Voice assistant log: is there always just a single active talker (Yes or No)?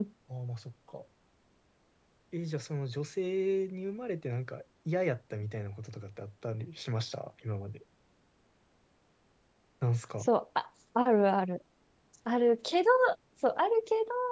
Yes